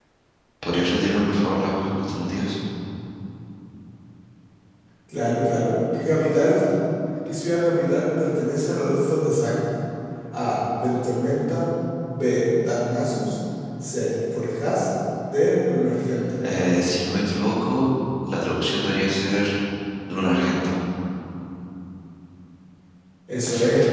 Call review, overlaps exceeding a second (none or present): none